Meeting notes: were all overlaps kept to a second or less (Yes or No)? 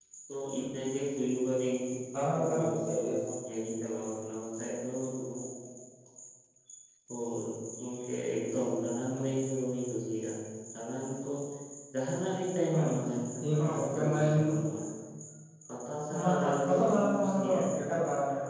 No